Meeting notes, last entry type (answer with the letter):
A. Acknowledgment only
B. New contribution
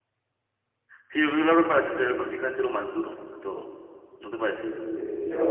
B